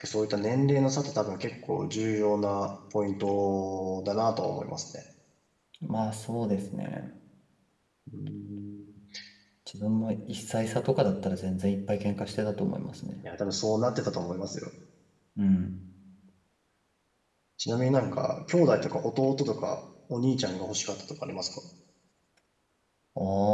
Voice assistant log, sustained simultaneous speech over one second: none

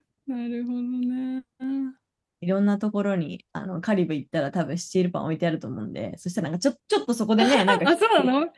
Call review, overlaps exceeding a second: none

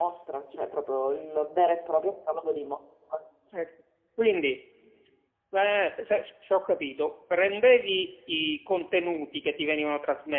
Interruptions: none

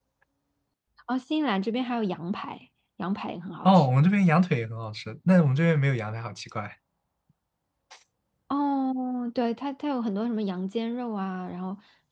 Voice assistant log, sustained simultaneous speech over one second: none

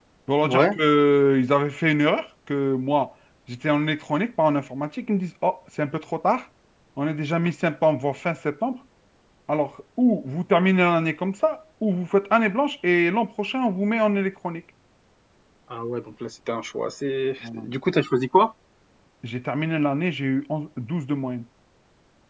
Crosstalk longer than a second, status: none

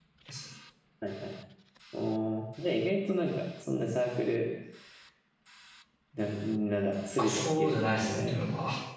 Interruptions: present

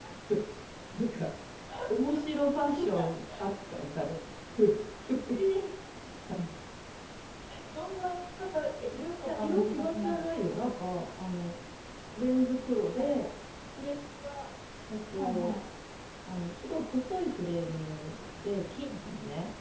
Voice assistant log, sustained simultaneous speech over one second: present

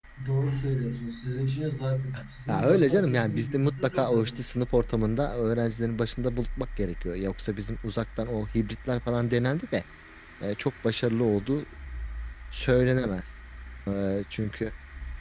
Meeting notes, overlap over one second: present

